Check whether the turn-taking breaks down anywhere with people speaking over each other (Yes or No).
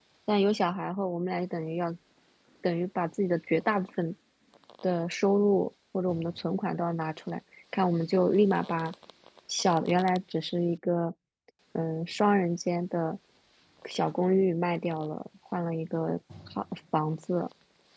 No